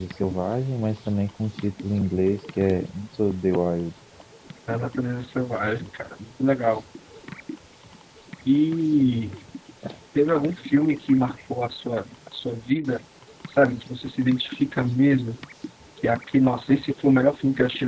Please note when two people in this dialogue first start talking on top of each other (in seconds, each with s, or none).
none